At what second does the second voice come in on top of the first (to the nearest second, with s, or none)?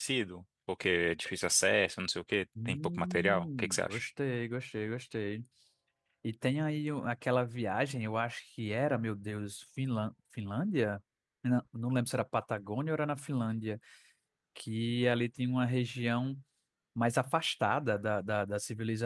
3 s